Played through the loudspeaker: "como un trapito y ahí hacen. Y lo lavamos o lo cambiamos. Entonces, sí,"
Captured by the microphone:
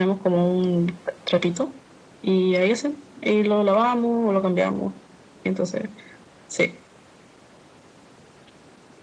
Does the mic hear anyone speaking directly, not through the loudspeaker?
No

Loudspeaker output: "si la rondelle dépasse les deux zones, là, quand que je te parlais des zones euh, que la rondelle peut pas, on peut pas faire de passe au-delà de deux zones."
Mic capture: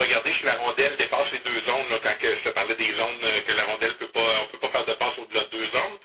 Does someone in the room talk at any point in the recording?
No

